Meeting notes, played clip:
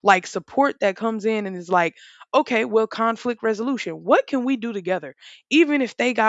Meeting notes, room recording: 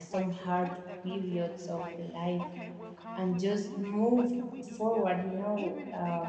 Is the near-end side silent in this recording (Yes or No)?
No